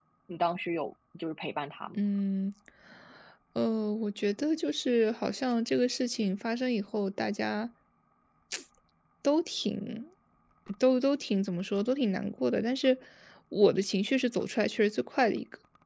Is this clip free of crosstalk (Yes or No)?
Yes